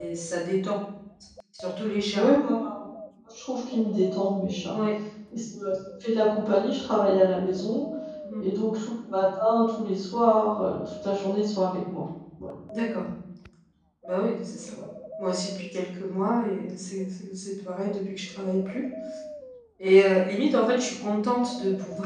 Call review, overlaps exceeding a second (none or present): none